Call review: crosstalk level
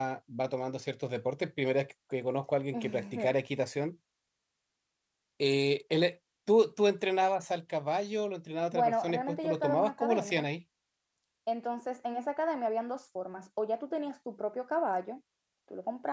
present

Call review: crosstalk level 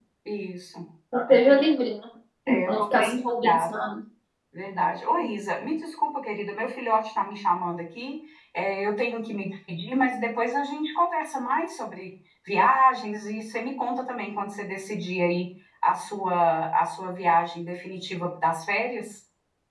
present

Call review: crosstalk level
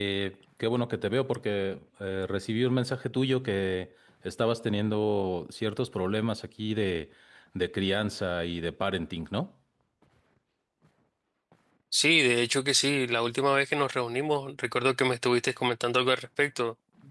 none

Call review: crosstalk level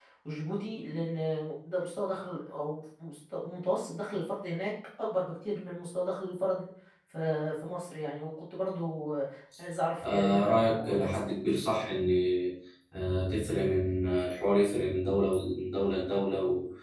present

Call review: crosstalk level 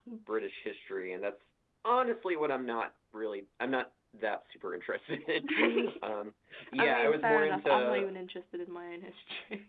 present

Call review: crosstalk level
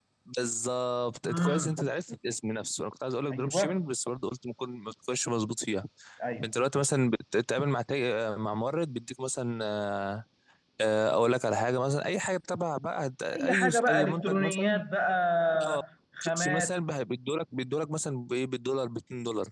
present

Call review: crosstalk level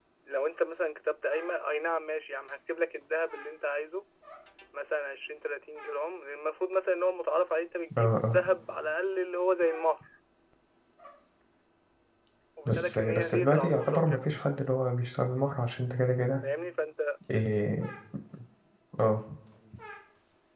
present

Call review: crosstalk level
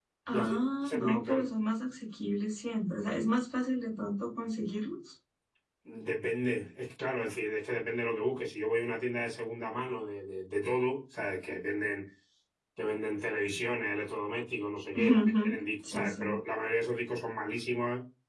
present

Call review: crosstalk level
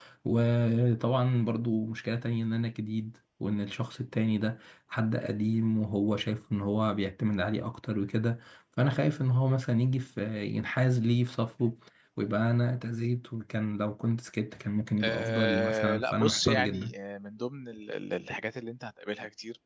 present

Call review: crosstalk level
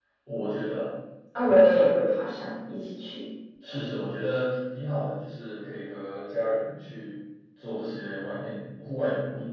none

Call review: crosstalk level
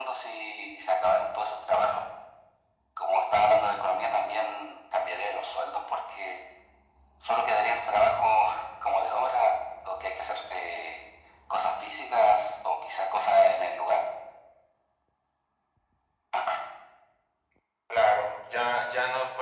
none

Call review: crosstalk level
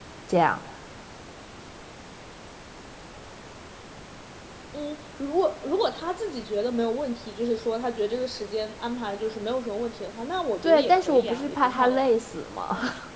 present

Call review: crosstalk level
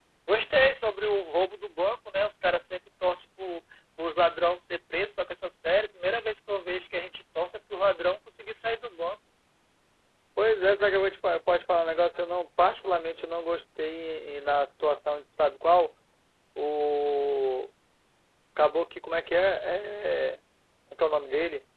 none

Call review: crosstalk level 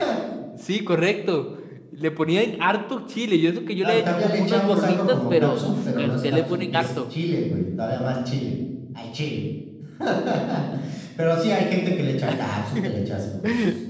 present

